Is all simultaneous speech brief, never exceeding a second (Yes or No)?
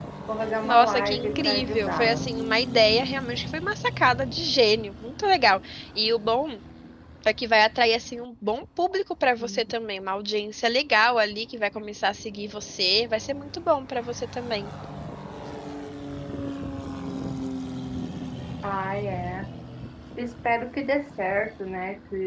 No